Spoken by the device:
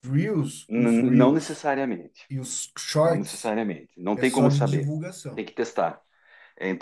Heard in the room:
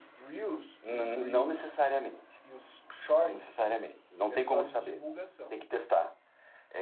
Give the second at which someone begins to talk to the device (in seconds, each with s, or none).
none